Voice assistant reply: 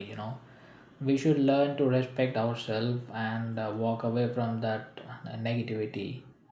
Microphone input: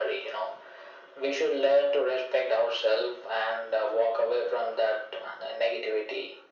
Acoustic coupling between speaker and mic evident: Yes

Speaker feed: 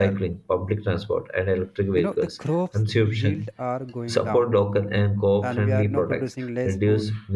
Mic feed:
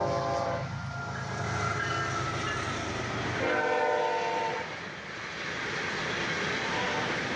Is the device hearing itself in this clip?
No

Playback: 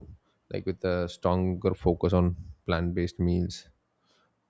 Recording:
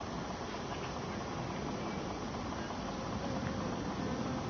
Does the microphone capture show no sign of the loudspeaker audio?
Yes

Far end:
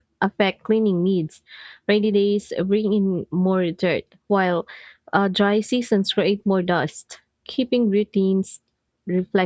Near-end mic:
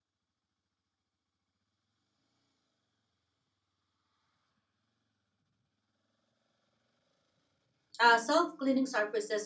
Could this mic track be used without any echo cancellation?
Yes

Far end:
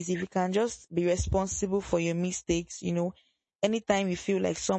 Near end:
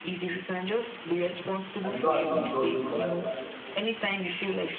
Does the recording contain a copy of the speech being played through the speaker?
Yes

